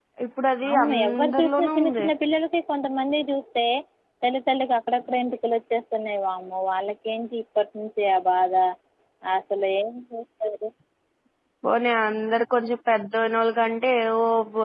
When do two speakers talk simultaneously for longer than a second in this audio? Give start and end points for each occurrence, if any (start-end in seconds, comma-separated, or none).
0.7-2.0